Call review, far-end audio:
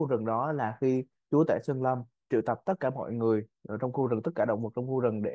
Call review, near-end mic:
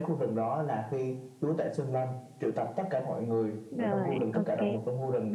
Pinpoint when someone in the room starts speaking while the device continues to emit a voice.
3.8 s

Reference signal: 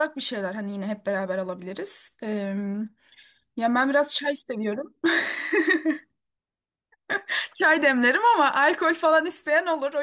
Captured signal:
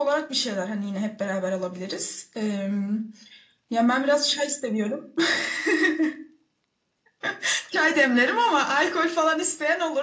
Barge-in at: none

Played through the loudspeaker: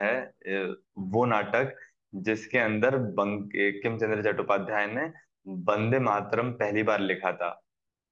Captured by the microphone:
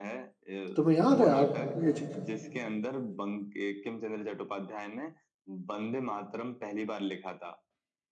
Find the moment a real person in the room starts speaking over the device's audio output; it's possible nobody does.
0.8 s

